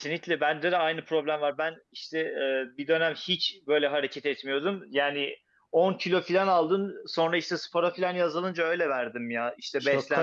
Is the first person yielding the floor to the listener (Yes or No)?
Yes